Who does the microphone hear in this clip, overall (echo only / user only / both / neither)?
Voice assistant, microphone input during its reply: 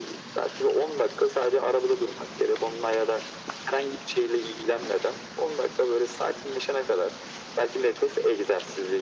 echo only